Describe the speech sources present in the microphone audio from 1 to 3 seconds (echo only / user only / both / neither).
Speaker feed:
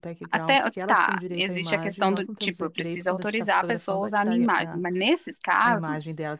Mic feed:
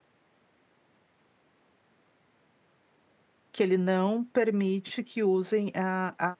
neither